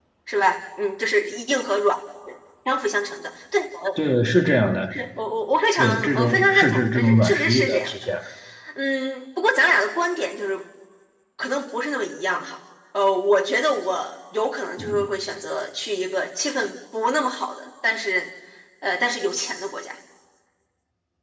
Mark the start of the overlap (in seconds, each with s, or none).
5.8 s